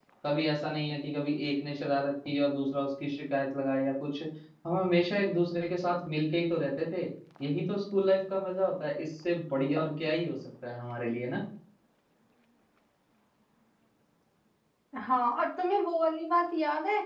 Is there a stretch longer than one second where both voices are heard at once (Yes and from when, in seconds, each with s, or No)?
No